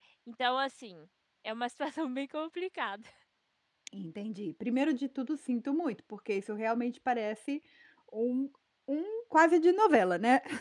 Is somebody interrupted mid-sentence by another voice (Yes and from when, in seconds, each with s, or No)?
No